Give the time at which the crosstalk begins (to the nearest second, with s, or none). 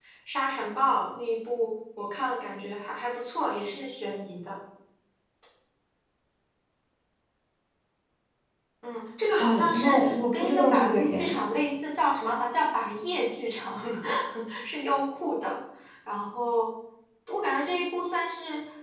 9 s